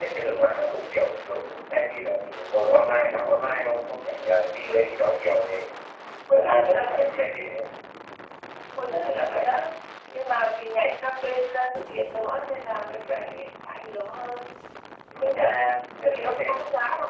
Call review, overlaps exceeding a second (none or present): present